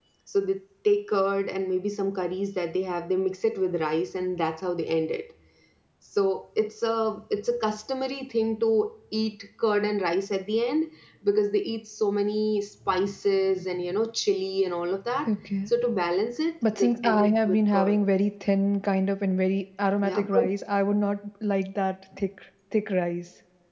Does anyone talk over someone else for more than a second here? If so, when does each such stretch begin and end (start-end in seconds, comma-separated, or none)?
16.7-18.0